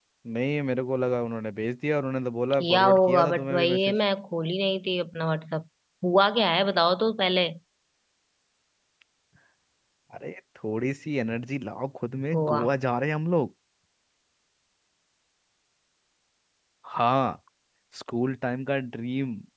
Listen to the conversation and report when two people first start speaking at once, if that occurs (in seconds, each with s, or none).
2.6 s